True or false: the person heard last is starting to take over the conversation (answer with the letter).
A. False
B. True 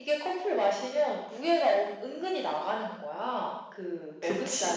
A